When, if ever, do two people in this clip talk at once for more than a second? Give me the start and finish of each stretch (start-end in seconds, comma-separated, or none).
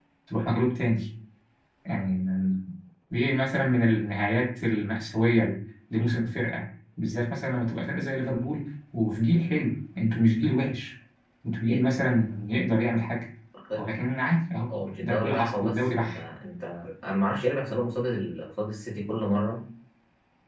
15.0-16.2